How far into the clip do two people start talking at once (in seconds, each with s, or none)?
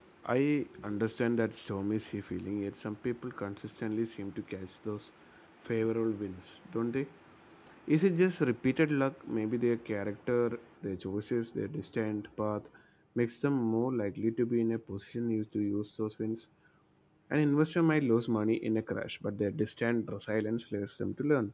none